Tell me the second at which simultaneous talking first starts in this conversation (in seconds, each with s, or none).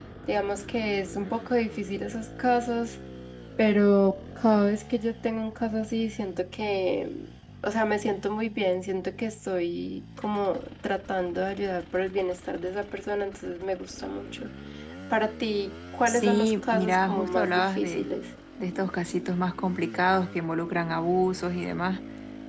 16.1 s